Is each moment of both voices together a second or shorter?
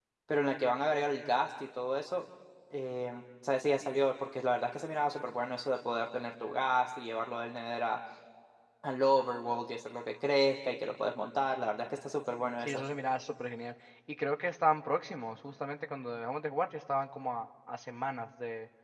Yes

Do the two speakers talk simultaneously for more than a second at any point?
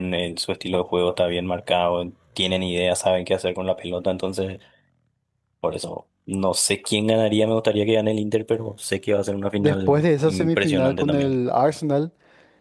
Yes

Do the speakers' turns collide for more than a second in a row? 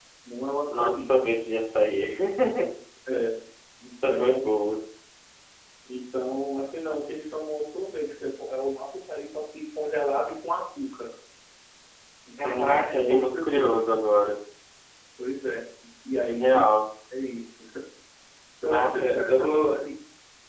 Yes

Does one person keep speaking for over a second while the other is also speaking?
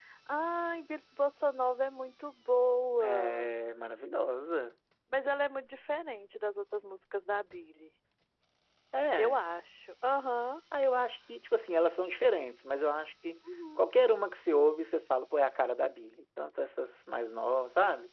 No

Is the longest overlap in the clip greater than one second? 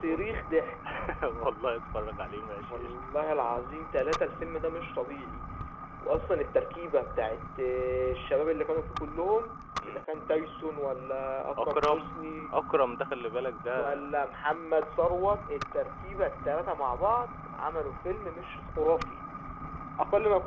No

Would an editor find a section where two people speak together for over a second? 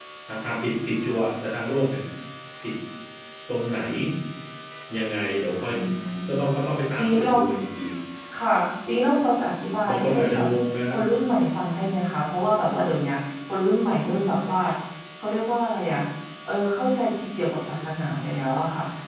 No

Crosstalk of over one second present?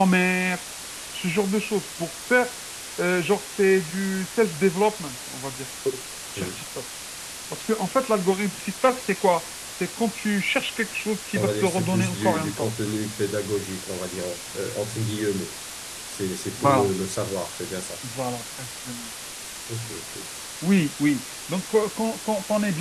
Yes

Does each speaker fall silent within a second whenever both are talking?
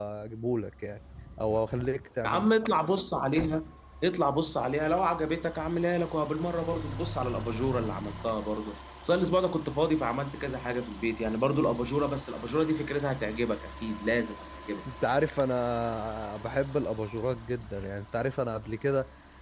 Yes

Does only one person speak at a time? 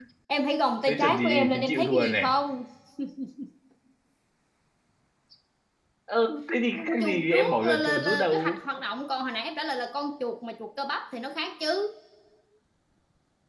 No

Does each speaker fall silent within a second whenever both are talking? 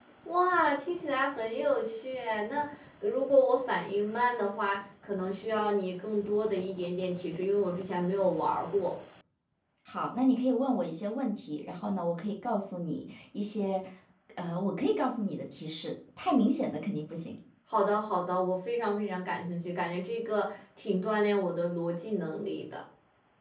Yes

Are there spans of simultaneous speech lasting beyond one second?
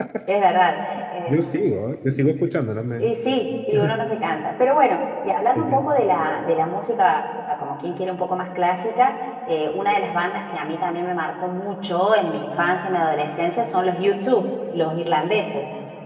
No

